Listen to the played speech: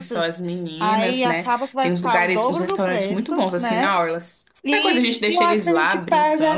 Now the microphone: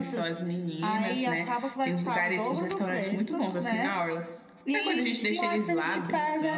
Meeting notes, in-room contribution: none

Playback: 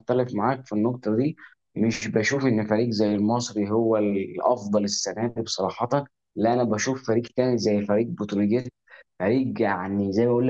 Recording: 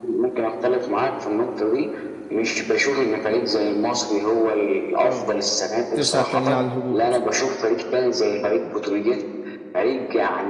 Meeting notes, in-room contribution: present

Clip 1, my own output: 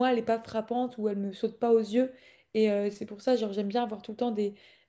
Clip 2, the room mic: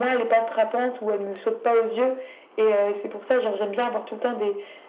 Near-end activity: none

